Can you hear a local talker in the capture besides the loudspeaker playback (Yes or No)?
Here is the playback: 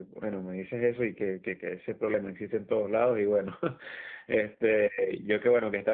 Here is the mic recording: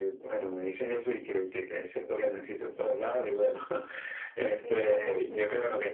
Yes